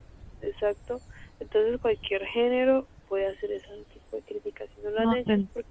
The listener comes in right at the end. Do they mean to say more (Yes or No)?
No